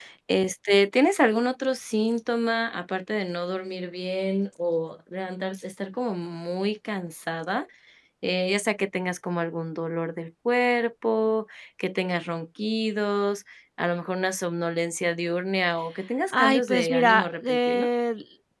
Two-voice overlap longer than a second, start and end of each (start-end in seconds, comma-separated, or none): 16.4-17.9